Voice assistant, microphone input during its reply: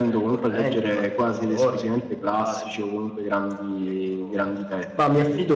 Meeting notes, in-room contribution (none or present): present